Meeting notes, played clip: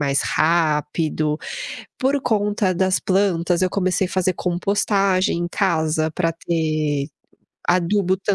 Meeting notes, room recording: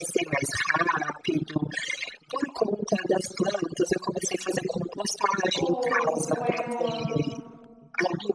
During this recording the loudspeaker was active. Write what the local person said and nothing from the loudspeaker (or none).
ou ou é no